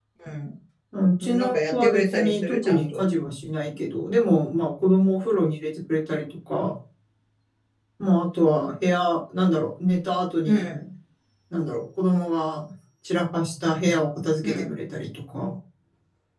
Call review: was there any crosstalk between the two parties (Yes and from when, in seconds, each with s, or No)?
Yes, from 1.4 s